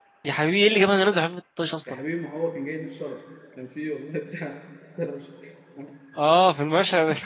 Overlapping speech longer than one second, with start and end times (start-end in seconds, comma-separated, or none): none